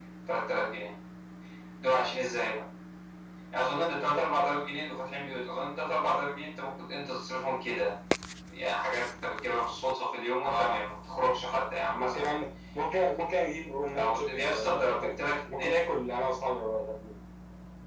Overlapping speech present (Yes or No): Yes